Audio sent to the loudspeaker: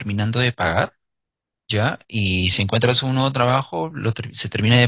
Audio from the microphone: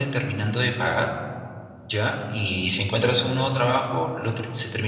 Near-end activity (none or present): none